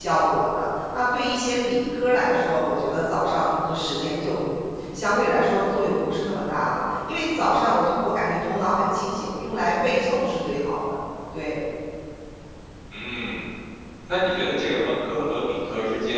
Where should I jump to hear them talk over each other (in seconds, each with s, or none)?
none